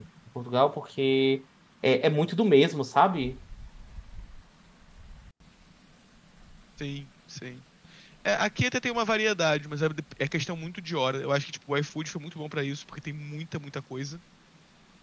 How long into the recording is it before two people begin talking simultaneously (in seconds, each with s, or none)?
none